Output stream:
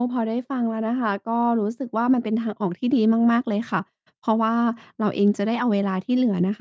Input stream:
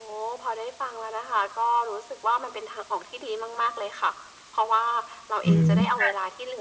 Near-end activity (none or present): present